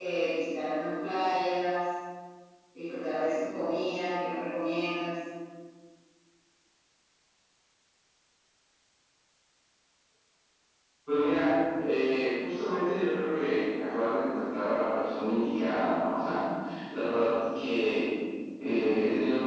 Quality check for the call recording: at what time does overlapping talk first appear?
none

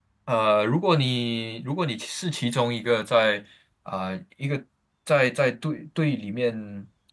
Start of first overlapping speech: none

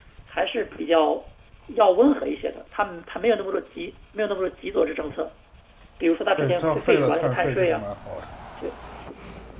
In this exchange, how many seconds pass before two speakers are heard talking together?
6.4 s

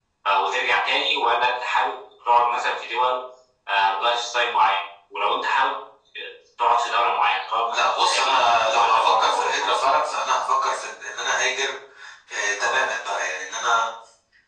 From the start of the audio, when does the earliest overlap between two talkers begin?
7.7 s

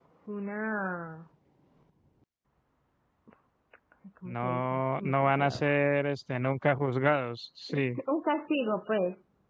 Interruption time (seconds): 4.2 s

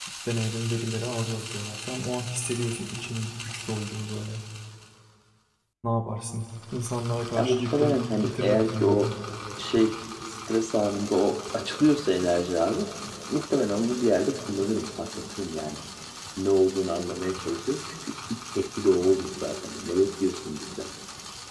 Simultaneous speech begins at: 7.4 s

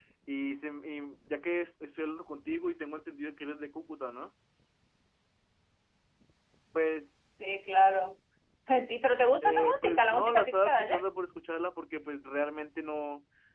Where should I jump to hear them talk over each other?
9.4 s

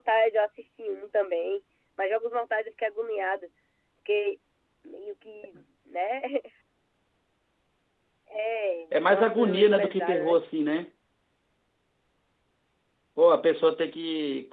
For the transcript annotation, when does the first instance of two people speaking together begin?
8.9 s

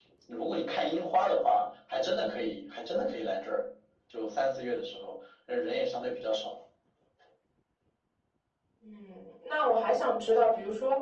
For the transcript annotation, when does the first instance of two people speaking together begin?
none

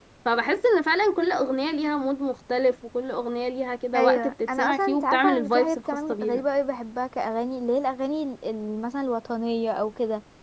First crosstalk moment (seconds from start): 3.9 s

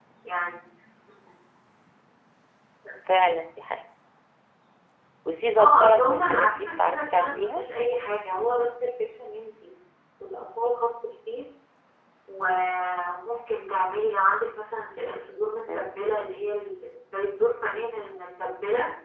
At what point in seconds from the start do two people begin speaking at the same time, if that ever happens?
5.6 s

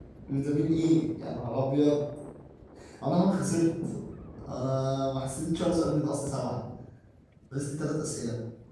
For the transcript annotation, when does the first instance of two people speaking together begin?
none

